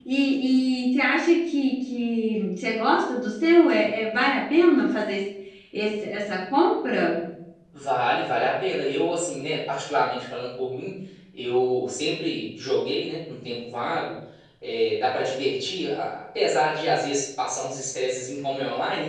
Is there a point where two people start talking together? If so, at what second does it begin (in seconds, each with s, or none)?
none